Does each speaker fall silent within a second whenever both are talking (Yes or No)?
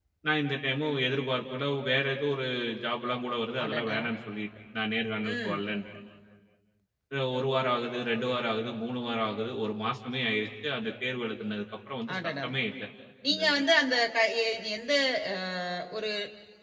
Yes